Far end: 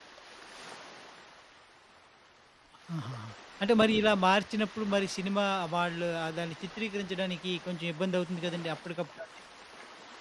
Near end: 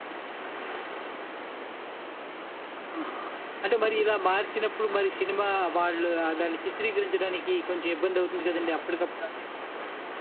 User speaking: No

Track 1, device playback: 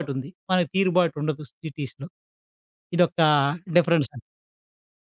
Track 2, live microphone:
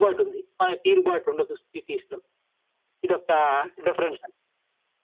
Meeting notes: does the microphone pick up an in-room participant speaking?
No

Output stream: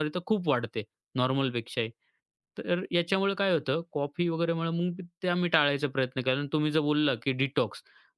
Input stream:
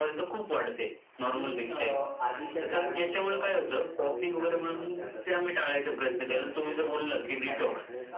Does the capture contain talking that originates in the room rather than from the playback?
Yes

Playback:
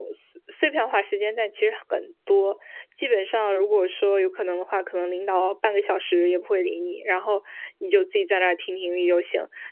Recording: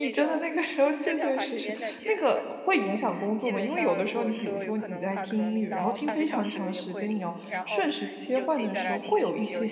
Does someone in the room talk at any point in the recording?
Yes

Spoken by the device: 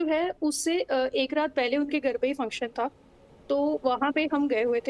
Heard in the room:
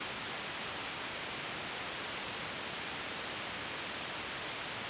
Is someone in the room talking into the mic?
No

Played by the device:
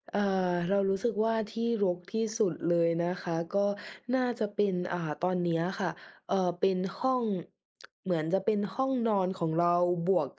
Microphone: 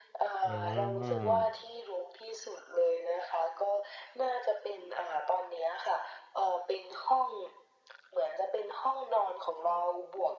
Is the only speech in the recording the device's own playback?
No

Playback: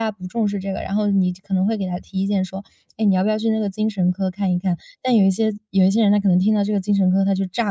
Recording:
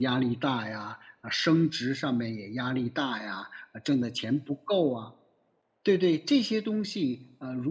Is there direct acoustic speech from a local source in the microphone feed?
Yes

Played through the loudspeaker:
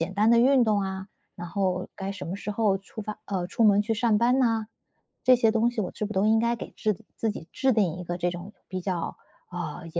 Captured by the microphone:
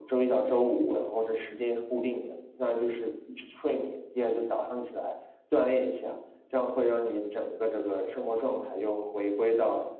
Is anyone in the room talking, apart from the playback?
Yes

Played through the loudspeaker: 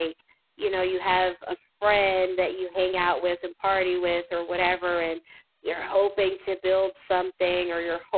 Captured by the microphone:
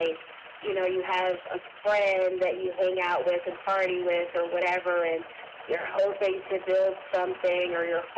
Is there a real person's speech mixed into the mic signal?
No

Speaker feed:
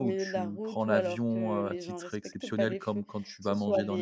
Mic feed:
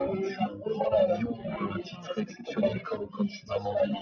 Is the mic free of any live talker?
Yes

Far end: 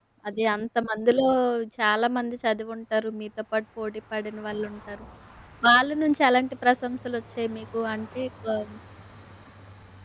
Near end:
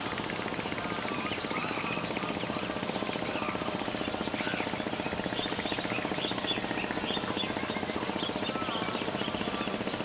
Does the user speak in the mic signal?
No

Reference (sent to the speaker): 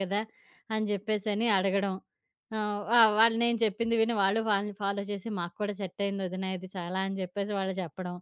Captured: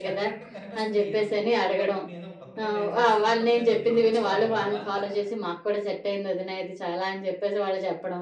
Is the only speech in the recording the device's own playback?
No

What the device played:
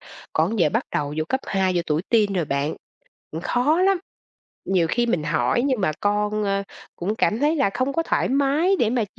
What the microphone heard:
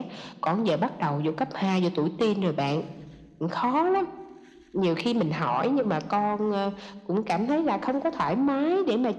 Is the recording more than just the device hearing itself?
No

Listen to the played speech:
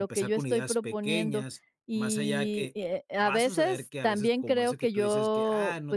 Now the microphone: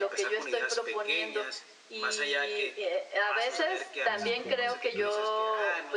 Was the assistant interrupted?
Yes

